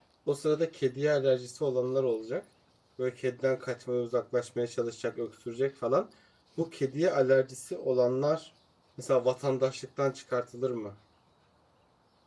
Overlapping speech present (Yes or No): No